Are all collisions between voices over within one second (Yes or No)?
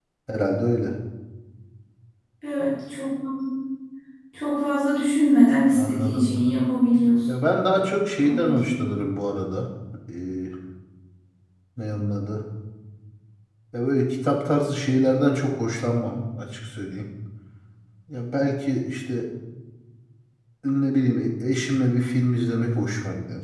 Yes